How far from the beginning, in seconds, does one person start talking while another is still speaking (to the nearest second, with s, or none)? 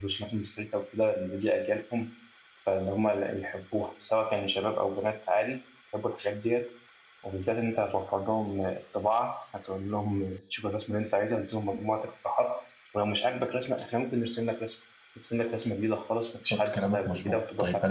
16 s